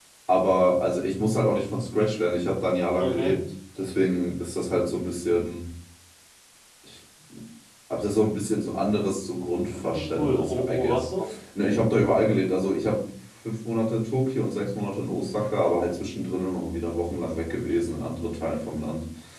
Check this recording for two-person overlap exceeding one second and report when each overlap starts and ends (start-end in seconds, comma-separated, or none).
9.7-11.1